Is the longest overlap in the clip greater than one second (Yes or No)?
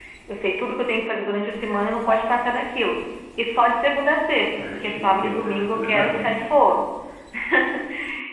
Yes